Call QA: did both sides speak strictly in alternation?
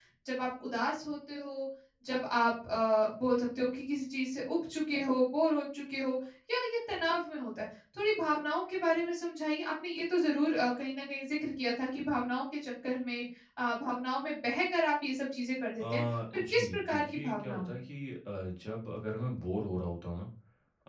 No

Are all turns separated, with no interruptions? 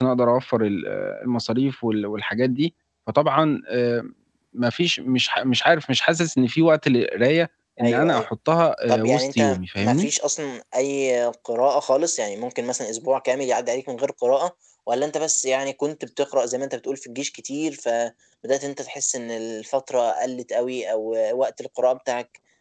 No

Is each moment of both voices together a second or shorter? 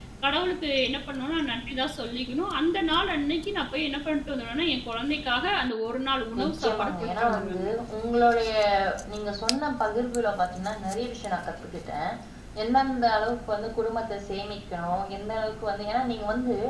No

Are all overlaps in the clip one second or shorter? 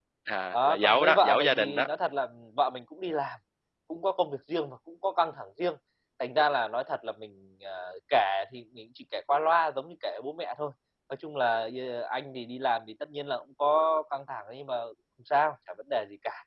No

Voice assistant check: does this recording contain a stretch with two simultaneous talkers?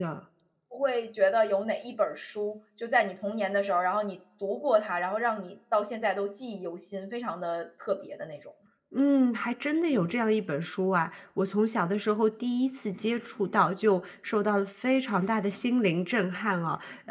No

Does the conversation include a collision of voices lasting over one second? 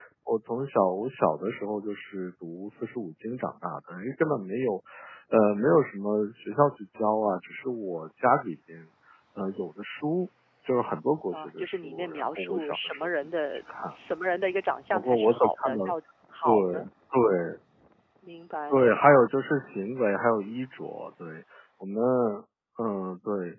Yes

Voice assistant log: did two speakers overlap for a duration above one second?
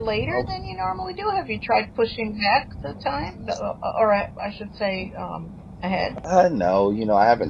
No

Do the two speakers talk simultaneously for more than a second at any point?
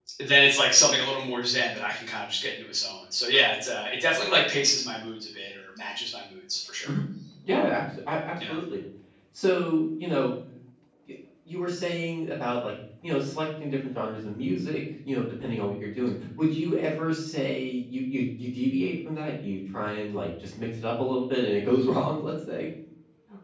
No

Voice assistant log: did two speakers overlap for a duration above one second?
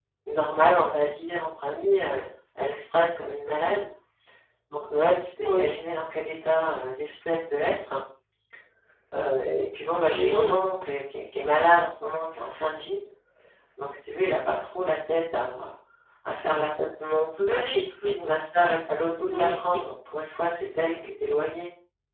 No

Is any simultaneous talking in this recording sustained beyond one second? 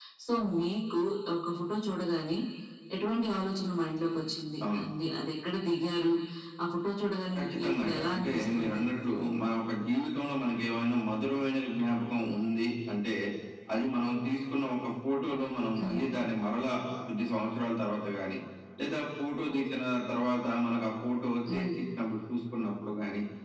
Yes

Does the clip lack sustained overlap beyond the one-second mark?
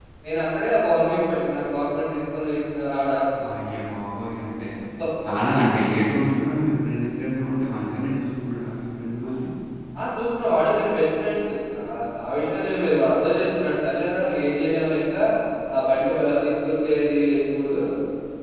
Yes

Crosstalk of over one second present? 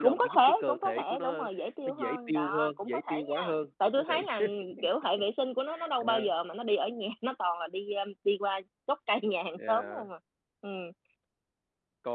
Yes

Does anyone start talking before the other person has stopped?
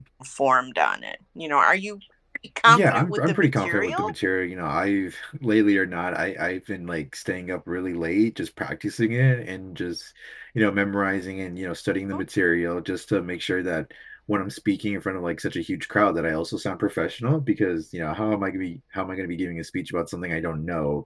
Yes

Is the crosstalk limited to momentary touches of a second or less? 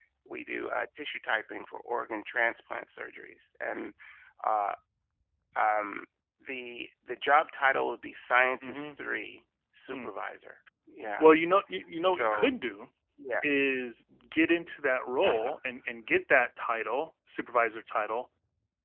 Yes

